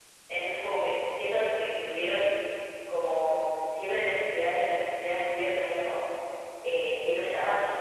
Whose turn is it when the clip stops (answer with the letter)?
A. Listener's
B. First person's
B